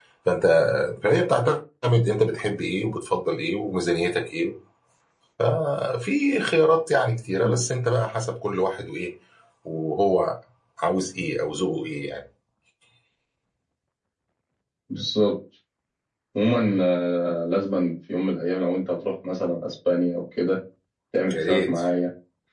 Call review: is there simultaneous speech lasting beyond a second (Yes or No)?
No